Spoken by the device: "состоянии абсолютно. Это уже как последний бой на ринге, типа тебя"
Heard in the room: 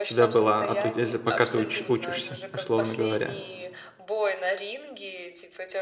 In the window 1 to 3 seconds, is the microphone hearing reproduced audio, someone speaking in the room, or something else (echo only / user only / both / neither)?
both